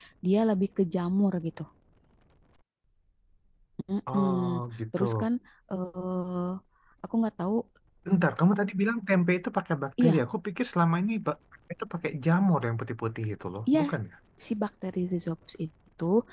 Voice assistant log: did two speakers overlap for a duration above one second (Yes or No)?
No